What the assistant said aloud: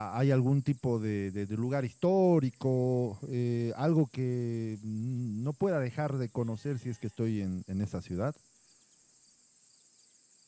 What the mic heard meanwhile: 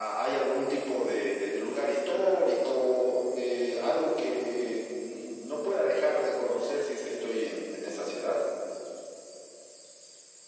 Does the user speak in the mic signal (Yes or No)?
No